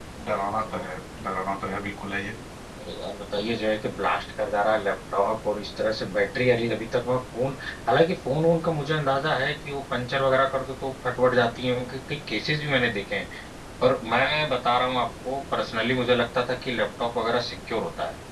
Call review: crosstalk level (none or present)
none